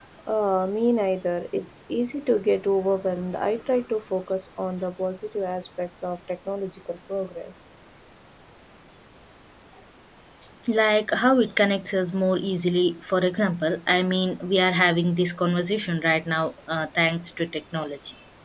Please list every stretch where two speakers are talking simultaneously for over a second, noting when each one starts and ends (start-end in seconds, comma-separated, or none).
none